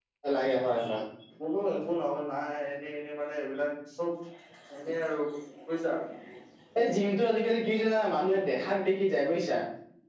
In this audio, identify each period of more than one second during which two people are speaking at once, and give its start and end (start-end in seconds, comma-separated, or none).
none